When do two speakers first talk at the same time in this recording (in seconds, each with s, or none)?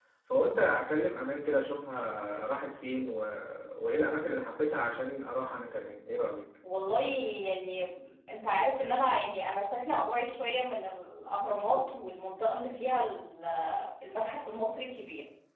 none